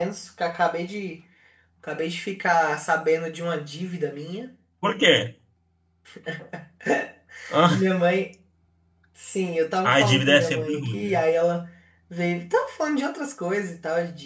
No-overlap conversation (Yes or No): No